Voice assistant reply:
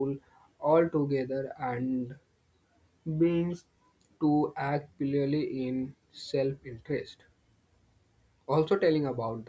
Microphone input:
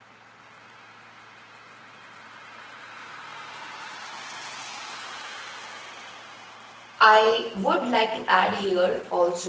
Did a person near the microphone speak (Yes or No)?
Yes